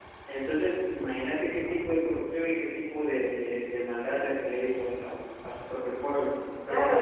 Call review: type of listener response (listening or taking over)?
taking over